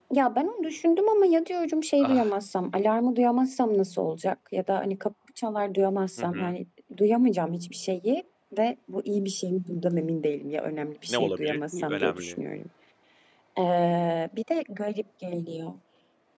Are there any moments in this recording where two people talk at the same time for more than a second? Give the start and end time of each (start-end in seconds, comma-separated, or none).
11.1-12.4